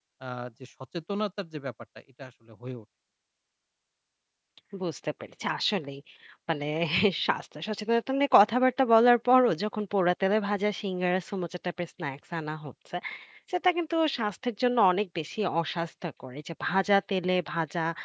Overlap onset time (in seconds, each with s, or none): none